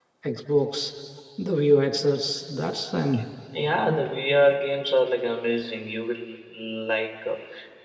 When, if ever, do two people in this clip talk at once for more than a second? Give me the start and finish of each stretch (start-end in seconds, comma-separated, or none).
none